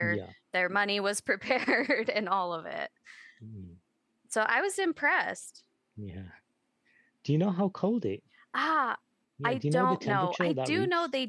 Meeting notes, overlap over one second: present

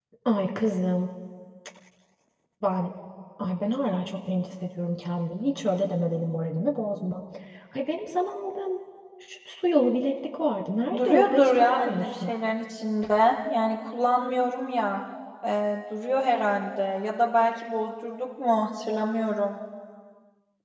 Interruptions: present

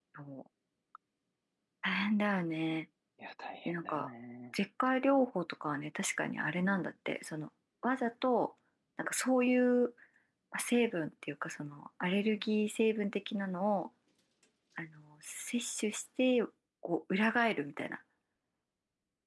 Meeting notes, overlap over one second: none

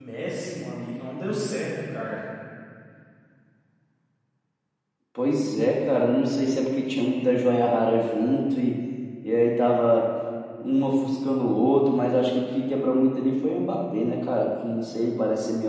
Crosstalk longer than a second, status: none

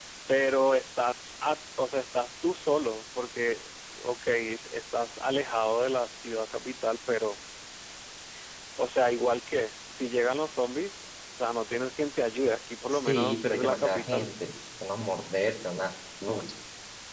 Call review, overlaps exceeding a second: present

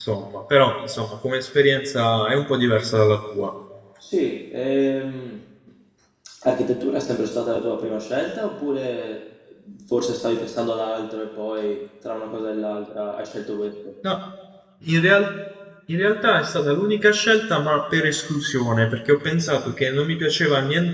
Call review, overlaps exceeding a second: none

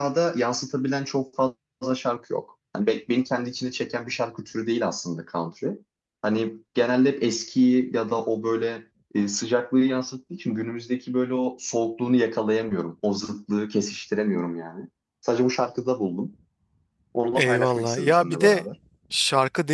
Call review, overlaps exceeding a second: present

